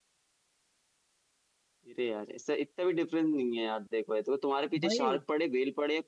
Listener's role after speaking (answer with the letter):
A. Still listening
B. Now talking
A